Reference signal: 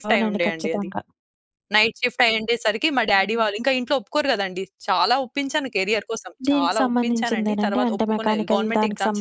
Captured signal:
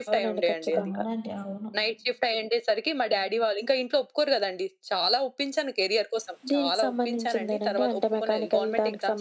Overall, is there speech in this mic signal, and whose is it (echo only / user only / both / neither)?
both